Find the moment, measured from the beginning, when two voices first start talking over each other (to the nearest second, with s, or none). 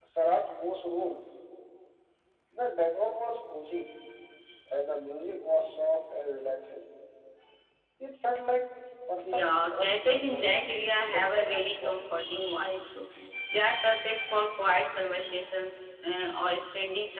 9 s